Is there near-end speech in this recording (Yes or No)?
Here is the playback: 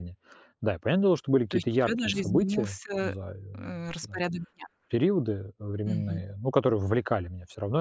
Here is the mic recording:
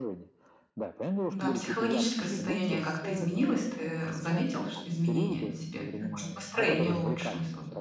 Yes